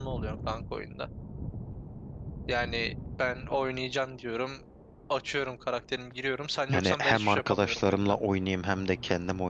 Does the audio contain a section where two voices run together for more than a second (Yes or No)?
Yes